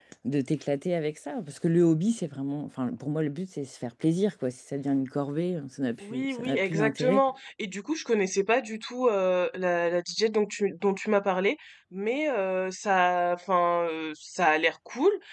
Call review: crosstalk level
present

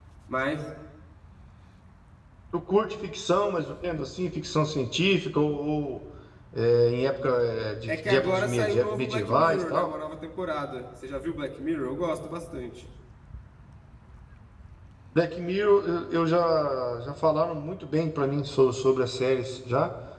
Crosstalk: present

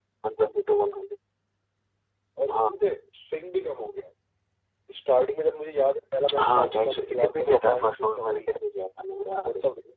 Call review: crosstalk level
present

